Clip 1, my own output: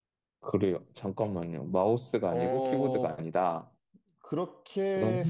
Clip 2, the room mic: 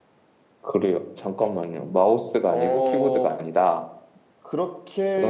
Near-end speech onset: none

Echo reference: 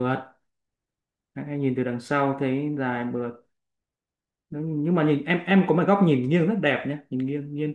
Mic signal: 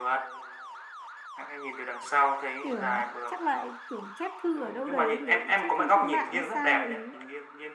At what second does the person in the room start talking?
3 s

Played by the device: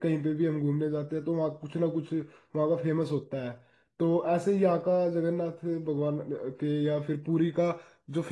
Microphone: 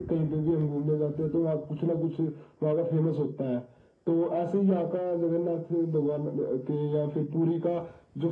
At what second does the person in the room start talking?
none

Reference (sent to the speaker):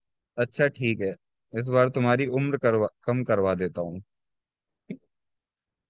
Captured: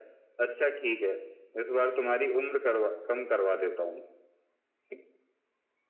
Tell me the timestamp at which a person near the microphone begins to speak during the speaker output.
none

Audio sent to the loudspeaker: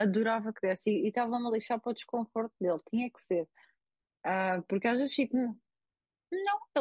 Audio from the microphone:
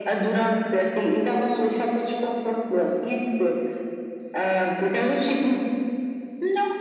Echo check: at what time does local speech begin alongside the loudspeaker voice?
none

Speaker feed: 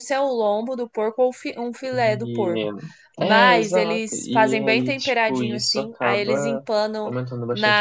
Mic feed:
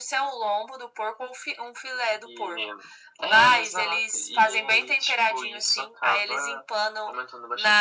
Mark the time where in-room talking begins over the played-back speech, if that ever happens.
none

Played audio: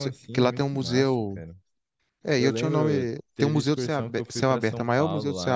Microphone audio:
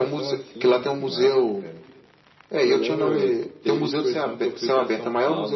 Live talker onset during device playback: none

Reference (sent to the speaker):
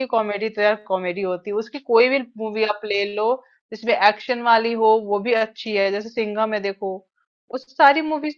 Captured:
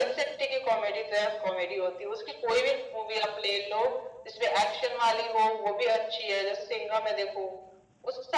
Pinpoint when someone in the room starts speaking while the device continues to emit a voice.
none

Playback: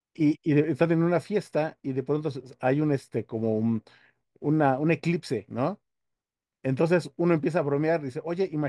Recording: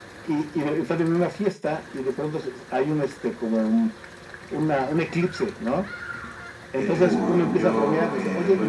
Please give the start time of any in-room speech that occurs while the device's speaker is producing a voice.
7 s

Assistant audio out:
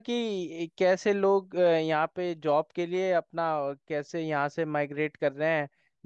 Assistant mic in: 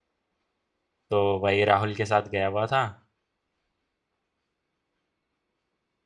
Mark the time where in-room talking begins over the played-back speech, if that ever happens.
1 s

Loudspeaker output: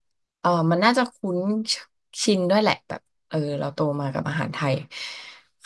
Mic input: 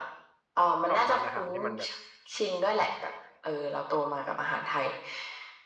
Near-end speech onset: 1 s

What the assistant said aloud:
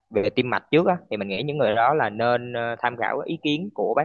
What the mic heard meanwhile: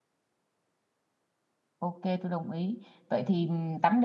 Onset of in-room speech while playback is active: 2 s

